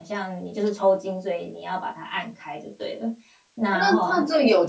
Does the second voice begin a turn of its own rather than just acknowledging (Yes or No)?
Yes